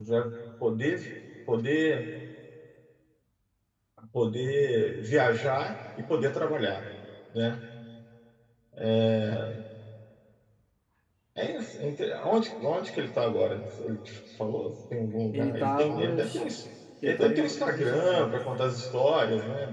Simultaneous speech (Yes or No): Yes